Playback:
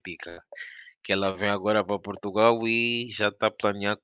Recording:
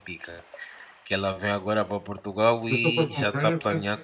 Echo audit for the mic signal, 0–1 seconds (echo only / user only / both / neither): echo only